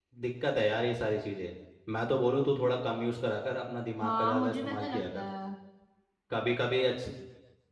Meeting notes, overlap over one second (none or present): present